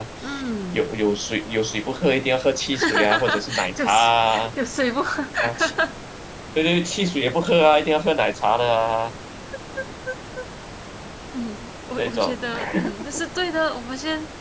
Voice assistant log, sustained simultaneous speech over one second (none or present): present